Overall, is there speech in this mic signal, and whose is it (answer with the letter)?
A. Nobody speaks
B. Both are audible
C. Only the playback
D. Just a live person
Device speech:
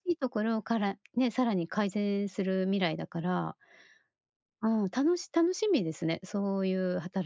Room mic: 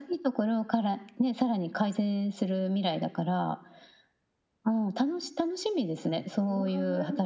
B